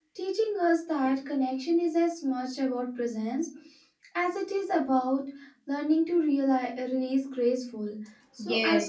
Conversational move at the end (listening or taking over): taking over